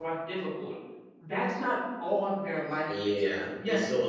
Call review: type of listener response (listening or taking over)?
taking over